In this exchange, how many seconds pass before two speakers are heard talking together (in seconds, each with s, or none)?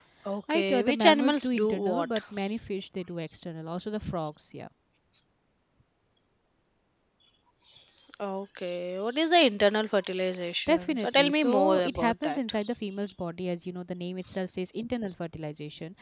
0.5 s